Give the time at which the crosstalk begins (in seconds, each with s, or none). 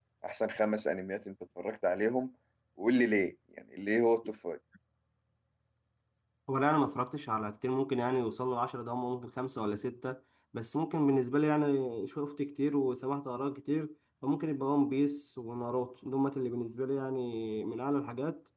none